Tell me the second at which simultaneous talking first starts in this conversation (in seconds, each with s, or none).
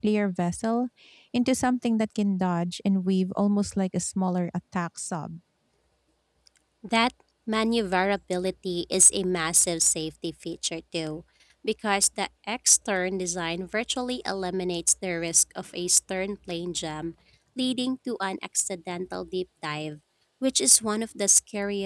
none